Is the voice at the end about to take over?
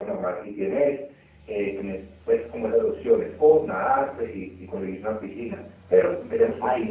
Yes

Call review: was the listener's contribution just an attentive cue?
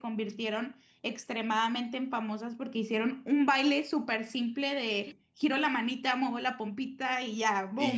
No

